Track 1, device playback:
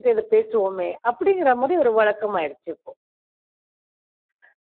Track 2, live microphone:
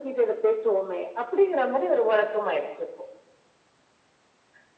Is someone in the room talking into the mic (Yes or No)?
No